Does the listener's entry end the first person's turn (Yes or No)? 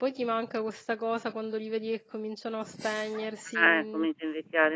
Yes